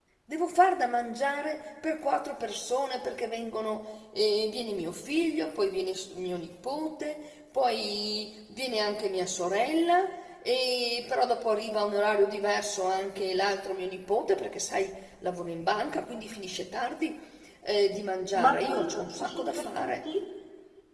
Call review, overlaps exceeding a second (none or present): present